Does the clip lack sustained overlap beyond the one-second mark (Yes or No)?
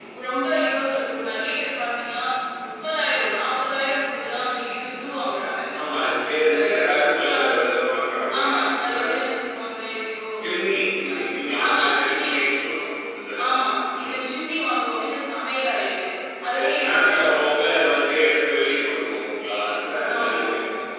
No